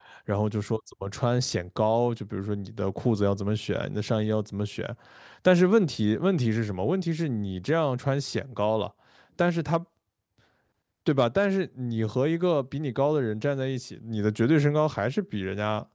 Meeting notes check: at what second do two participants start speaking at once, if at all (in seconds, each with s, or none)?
none